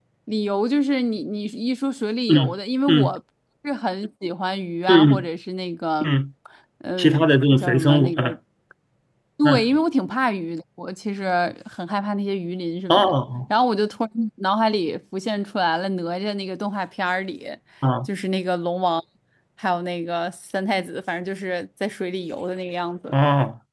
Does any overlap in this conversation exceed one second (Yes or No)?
Yes